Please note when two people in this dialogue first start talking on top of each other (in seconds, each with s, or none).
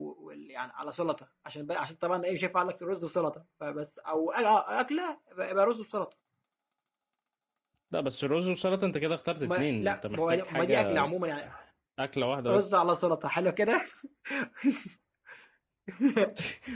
9.4 s